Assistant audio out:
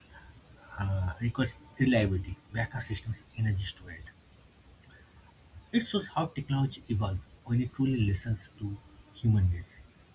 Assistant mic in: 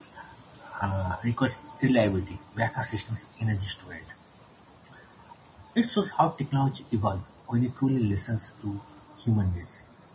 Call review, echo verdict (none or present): present